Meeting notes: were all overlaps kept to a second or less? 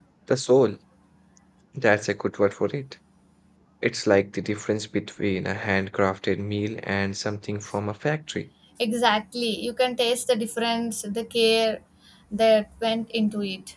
Yes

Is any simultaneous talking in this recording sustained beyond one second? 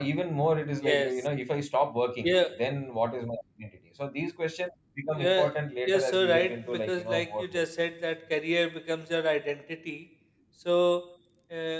Yes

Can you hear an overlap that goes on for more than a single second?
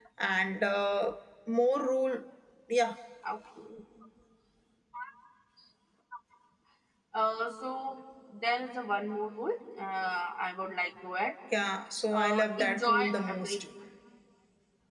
Yes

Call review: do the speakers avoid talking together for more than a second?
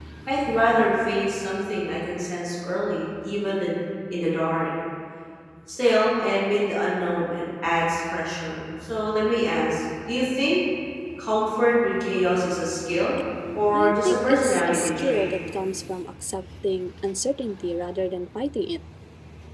No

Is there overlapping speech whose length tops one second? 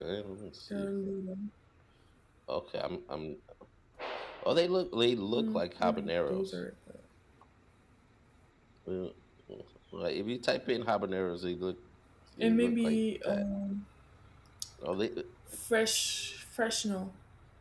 Yes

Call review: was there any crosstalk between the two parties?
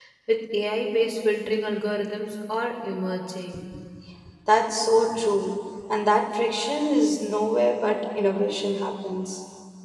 No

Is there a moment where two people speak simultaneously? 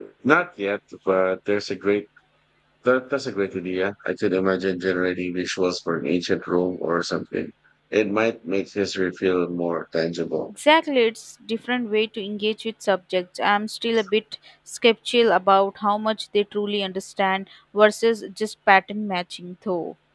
No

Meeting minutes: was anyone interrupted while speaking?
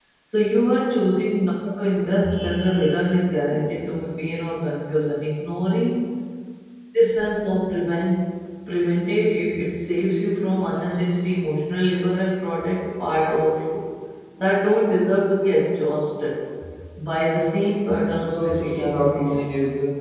Yes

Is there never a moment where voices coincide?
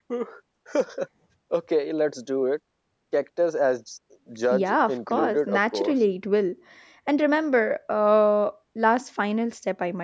No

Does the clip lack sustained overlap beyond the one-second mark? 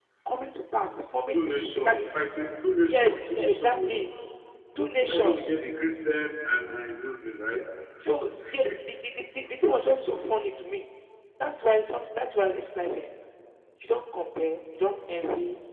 No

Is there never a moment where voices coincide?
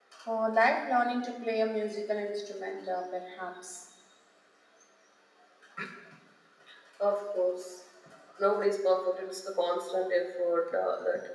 Yes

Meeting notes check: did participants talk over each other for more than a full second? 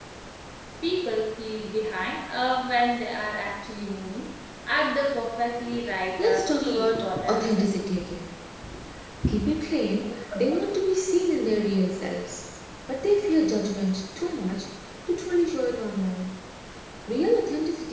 Yes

